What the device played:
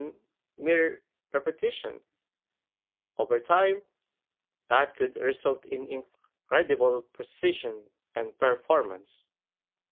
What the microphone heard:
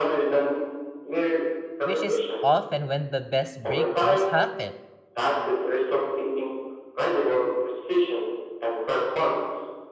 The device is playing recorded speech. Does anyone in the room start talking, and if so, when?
1.8 s

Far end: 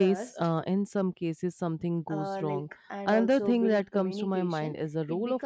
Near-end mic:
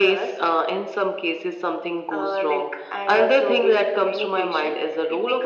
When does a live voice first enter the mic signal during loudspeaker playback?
none

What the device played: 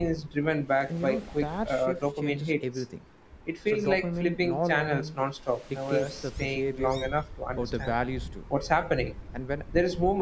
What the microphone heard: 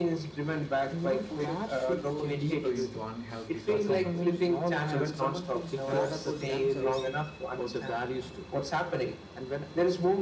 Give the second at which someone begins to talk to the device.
1.3 s

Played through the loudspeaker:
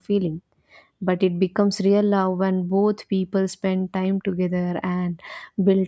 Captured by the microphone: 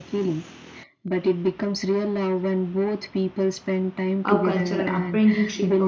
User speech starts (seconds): 4.2 s

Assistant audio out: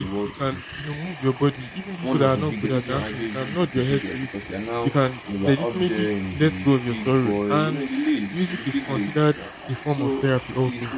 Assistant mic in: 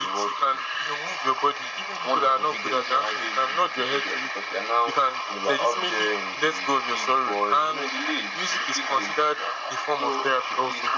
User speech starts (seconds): none

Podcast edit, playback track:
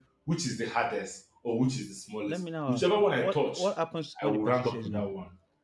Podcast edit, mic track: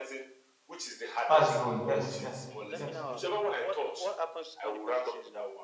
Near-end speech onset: 1.2 s

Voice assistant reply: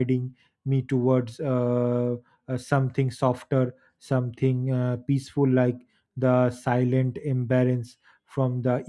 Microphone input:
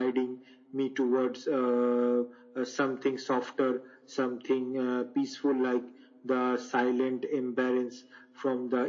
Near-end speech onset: none

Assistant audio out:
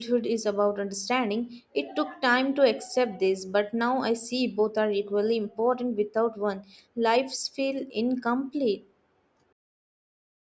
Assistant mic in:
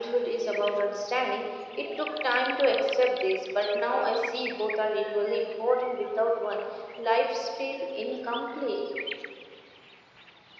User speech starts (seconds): none

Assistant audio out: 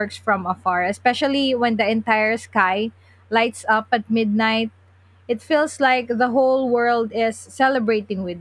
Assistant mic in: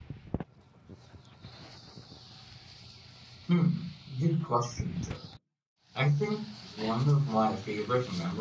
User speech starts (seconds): 3.5 s

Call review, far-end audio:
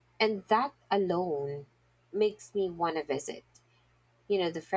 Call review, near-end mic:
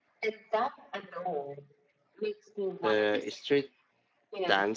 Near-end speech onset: 2.8 s

